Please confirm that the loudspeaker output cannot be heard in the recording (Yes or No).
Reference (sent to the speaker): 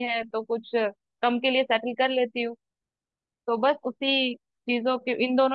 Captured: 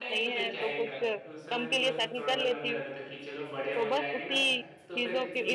No